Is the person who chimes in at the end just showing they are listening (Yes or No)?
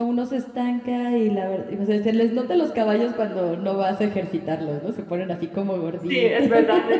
No